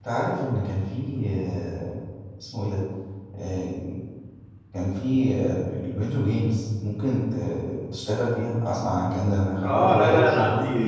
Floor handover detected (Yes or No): Yes